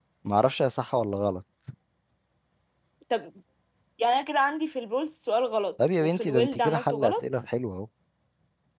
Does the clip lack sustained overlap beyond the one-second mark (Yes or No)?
No